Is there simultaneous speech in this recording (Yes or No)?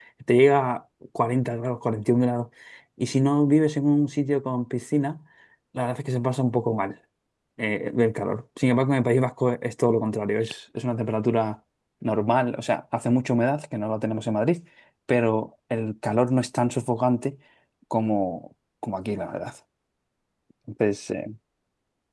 No